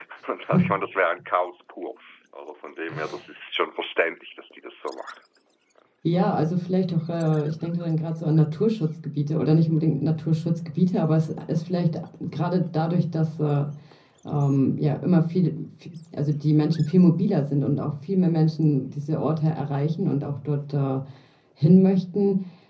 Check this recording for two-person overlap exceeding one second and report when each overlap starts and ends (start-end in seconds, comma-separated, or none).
none